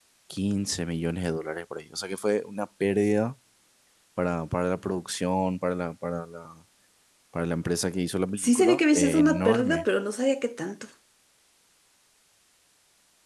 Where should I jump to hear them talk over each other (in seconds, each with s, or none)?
8.4 s